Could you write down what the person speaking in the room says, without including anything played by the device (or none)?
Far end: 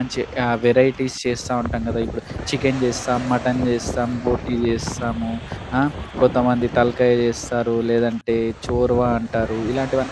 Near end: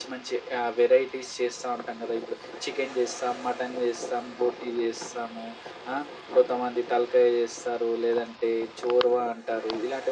none